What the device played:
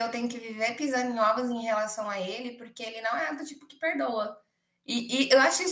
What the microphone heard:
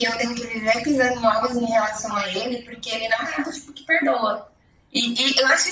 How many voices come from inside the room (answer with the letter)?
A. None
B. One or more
A